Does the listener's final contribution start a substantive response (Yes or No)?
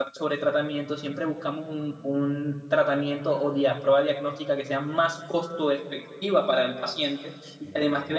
No